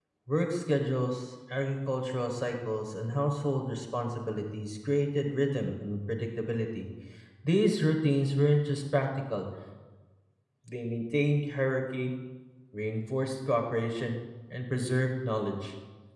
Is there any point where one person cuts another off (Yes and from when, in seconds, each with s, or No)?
No